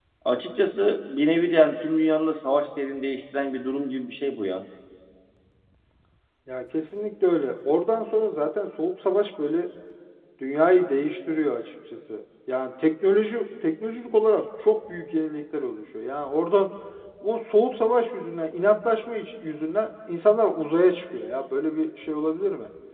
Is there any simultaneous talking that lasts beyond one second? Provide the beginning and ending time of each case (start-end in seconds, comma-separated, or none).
none